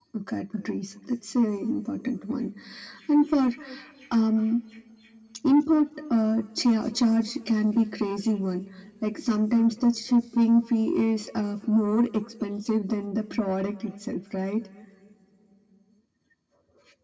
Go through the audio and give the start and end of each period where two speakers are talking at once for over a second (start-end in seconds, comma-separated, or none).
none